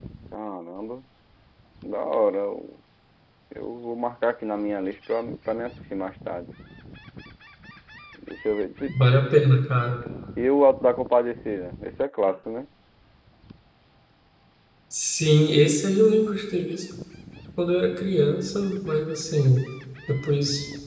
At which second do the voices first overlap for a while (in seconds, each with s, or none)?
none